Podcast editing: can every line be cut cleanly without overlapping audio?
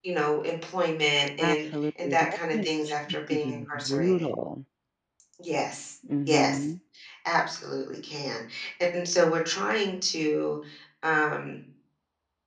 No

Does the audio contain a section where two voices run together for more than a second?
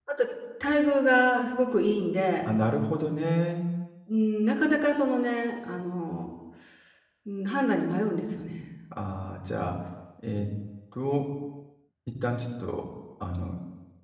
No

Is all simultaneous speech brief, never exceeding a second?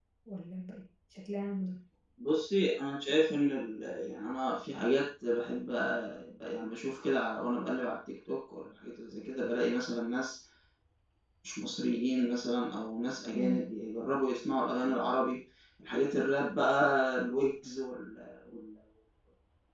Yes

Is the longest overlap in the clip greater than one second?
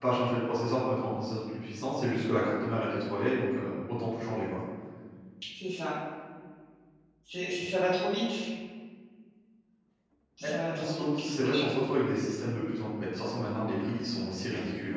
Yes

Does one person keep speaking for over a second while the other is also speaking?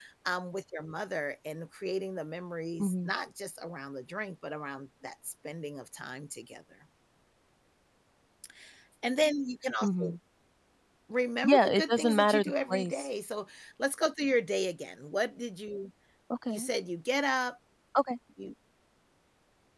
Yes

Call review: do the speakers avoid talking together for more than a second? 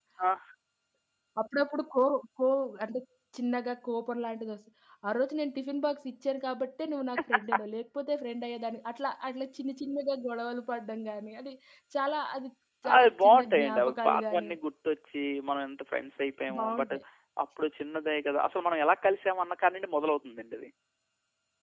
No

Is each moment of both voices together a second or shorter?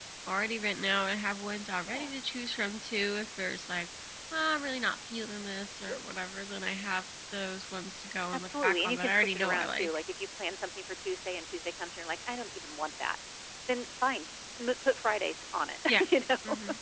No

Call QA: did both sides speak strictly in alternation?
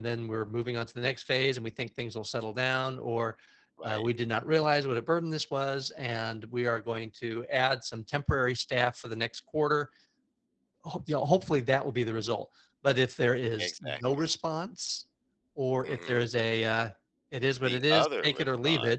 No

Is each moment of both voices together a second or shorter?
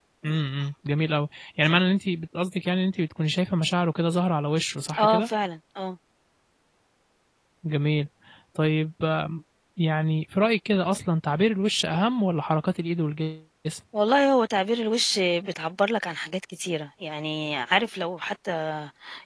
Yes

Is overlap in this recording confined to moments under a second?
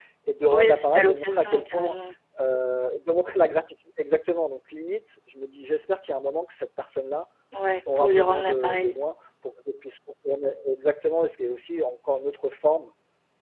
No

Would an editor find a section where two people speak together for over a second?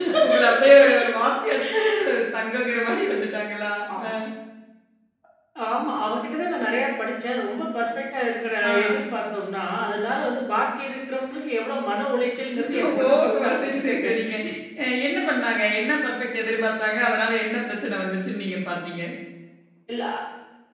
Yes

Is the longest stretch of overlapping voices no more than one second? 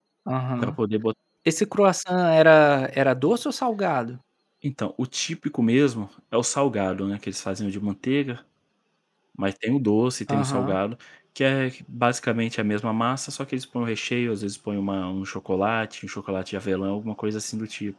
Yes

